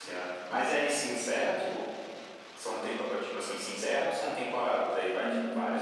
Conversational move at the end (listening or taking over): taking over